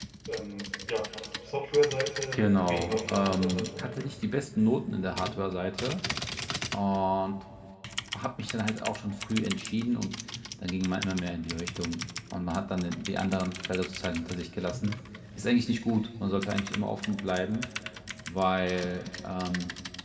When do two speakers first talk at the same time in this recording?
2.3 s

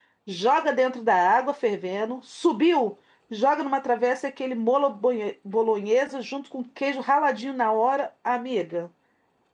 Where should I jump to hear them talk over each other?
none

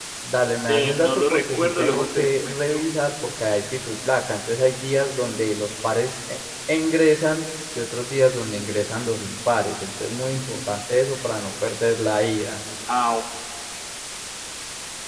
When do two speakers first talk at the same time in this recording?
0.7 s

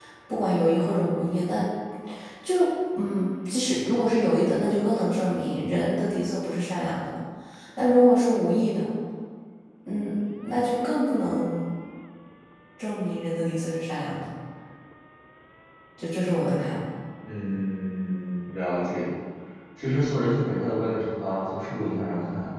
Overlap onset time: none

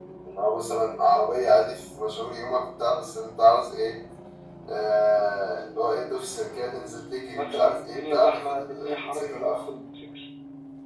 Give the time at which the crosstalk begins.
7.3 s

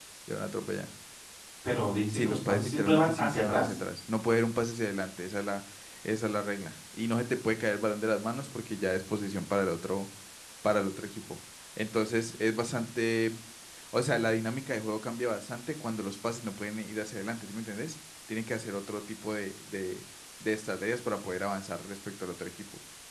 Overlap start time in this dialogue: 2.1 s

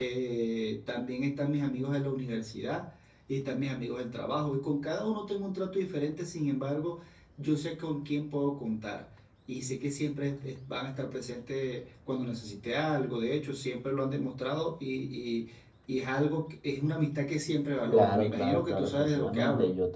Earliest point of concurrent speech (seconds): 17.9 s

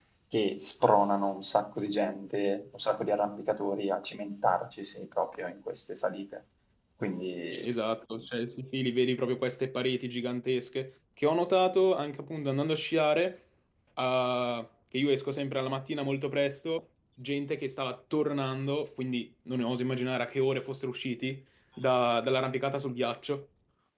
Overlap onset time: none

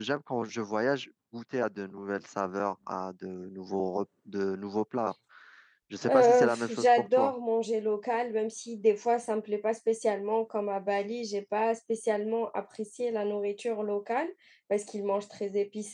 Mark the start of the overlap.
6.1 s

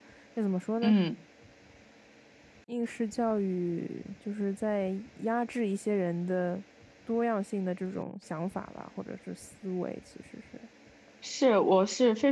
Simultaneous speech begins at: none

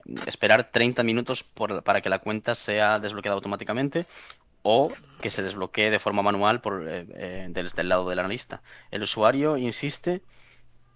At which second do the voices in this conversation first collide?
none

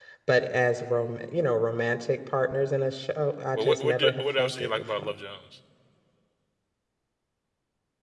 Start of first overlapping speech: 3.6 s

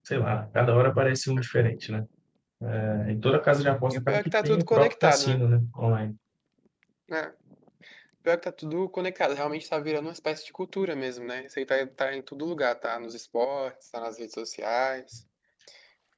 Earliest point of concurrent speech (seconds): 3.9 s

